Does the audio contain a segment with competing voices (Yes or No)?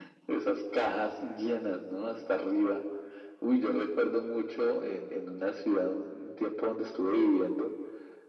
No